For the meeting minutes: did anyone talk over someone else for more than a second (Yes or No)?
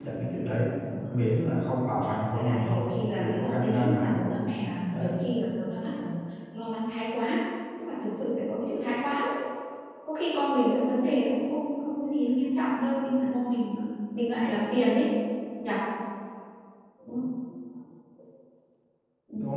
Yes